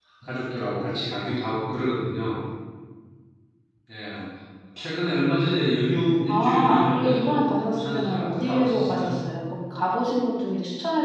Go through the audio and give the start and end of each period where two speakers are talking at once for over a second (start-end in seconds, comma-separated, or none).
6.3-9.2